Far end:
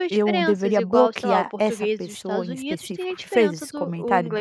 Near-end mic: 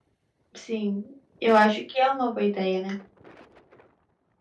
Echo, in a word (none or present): none